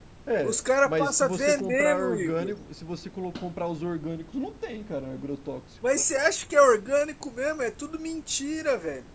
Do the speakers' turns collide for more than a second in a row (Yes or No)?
Yes